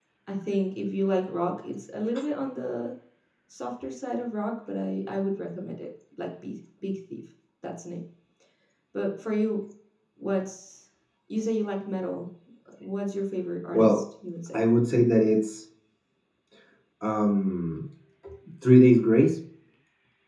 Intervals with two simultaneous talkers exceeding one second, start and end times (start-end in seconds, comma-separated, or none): none